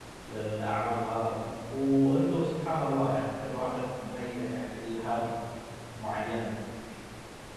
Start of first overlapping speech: none

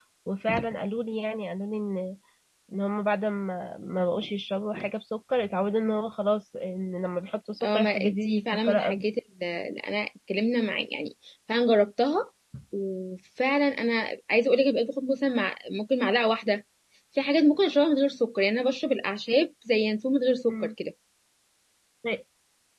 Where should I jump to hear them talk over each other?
7.6 s

